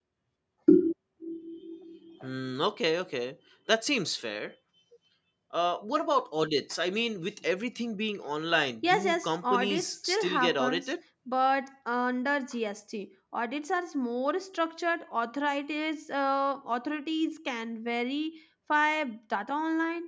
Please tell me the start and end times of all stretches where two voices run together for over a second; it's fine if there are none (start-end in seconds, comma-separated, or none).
8.9-10.9